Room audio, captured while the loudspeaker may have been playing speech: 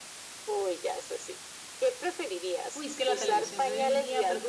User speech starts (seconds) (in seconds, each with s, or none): 2.7 s